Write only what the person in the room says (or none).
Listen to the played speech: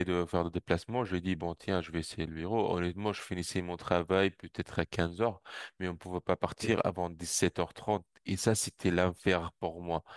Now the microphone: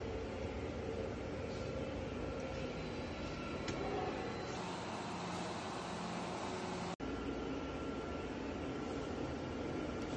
none